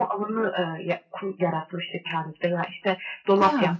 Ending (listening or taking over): listening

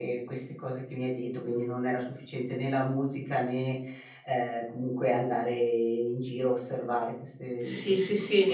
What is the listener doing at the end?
taking over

